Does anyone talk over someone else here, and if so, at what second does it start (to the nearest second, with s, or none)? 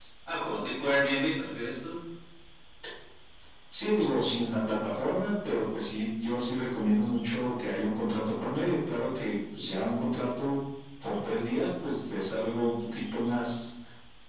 none